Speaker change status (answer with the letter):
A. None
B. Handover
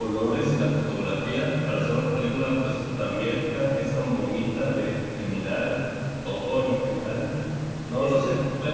A